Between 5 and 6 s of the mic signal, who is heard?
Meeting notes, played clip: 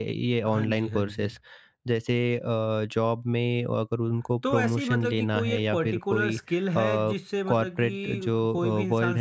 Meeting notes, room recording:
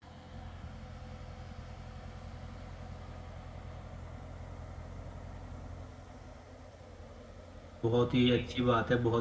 neither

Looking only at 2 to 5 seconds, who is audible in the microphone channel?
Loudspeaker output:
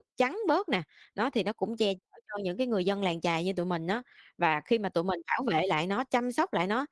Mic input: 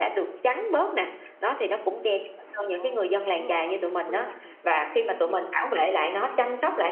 both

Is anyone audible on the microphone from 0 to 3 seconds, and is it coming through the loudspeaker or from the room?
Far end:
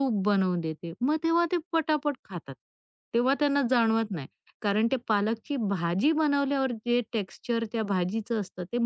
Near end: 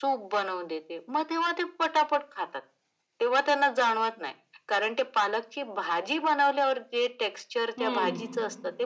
echo only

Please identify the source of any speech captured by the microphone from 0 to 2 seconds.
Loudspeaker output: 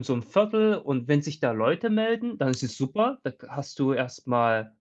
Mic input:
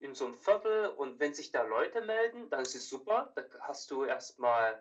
echo only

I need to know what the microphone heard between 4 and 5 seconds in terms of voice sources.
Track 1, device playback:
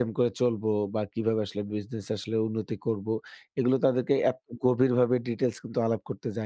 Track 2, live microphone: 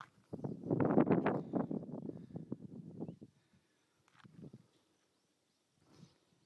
neither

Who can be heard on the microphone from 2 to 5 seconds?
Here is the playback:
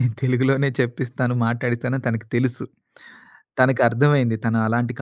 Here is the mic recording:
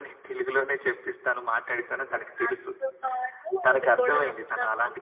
both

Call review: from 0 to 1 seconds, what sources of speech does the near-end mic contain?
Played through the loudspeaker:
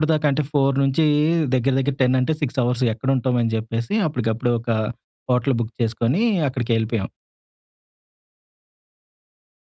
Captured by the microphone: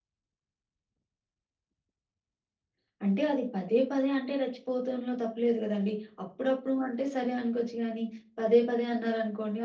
neither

